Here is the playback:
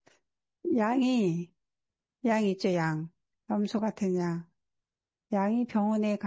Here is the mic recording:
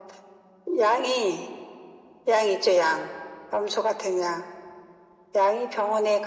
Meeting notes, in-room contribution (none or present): none